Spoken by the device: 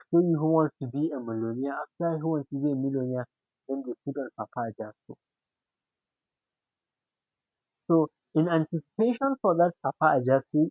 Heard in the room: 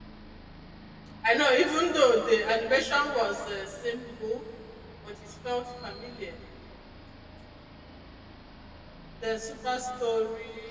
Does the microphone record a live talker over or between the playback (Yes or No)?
Yes